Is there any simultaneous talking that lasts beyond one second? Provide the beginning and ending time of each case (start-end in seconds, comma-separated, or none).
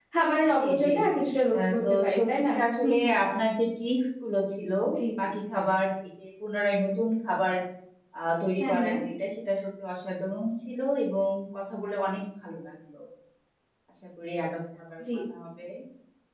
1.5-3.2